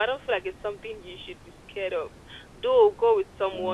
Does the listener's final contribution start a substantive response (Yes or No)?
No